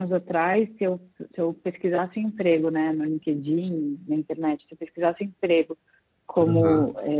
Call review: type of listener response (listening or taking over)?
listening